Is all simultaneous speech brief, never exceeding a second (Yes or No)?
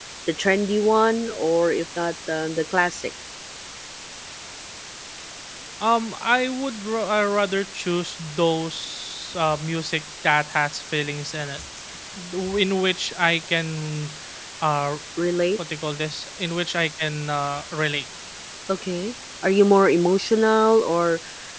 Yes